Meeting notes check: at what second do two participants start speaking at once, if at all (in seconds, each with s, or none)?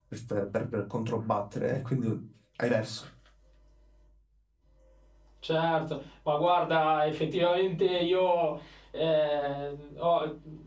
none